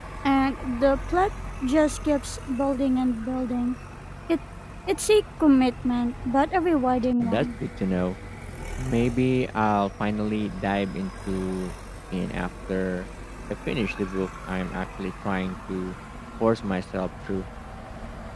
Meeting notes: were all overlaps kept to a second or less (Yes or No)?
Yes